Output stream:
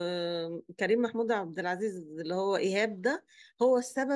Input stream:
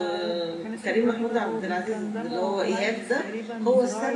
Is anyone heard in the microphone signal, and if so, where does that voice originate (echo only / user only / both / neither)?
both